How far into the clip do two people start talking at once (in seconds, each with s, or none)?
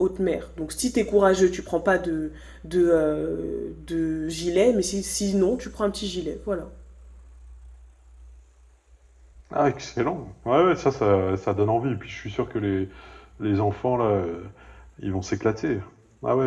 none